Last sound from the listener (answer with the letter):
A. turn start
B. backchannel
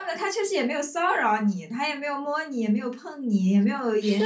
A